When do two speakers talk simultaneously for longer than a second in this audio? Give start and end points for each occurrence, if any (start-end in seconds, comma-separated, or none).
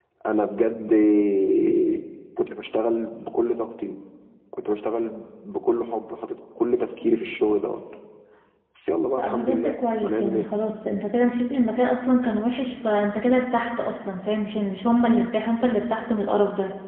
9.2-10.4